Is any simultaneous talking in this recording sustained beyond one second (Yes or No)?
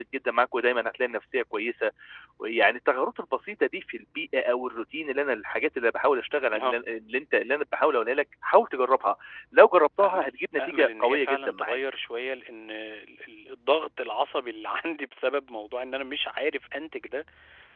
Yes